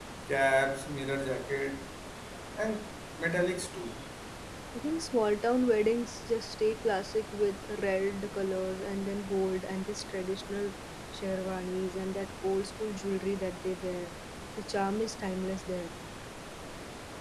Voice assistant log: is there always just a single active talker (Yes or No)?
Yes